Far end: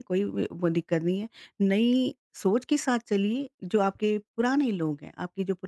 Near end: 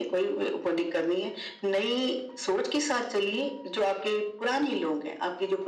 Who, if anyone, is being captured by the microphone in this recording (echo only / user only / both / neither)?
echo only